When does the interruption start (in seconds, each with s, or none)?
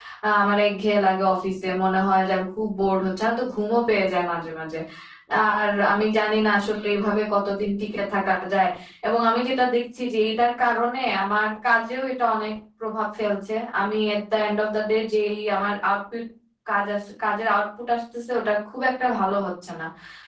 none